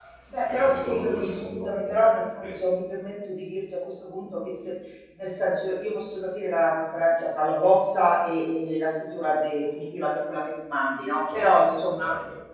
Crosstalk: present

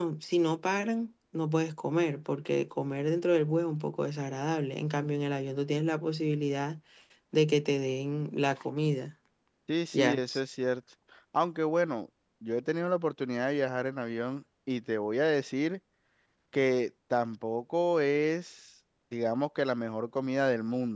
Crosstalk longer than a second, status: none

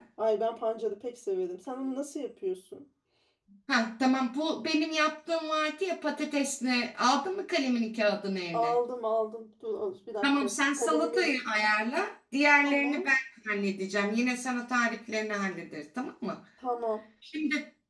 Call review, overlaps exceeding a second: present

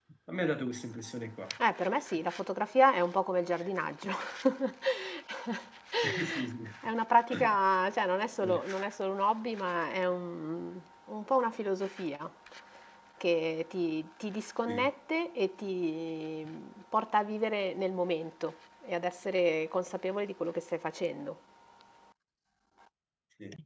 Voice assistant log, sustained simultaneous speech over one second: none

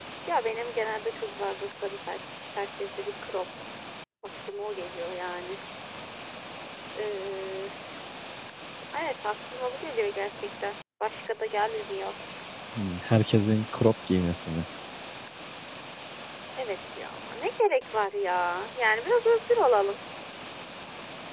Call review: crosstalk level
none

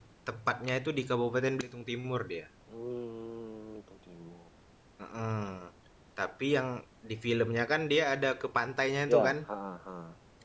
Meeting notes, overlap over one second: none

